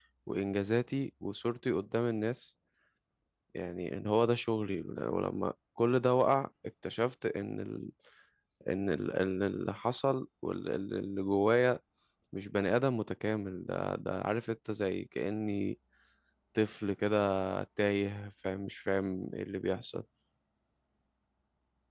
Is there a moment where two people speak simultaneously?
No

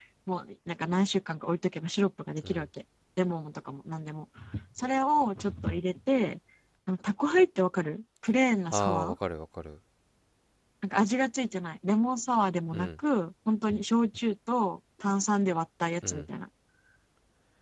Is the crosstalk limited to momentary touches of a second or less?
Yes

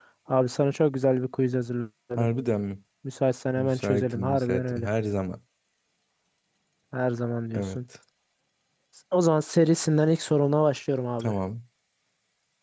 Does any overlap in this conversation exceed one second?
Yes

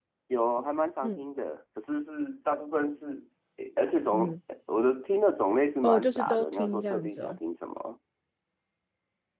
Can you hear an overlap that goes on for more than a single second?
Yes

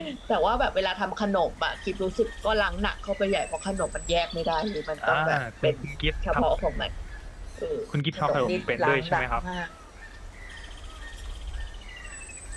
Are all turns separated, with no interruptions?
No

